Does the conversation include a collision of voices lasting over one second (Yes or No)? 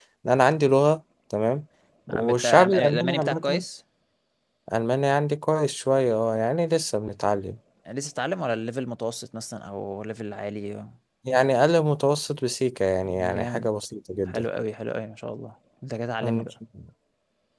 Yes